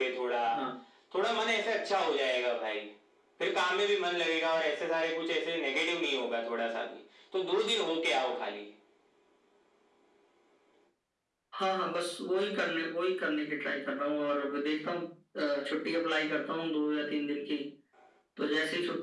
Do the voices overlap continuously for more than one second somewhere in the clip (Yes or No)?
No